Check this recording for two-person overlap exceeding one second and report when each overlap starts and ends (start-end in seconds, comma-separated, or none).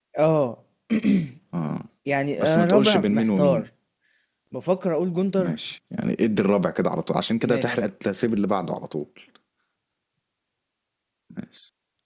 2.4-3.6